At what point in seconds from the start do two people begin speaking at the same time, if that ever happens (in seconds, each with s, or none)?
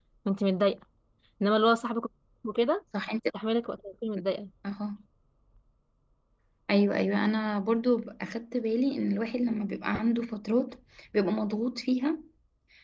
none